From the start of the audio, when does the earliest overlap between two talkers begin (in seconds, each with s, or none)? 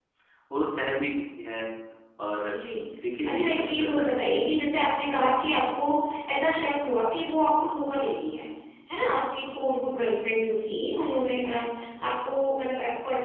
3.2 s